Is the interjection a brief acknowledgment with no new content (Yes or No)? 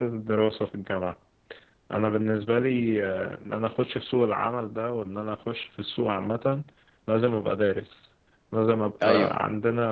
Yes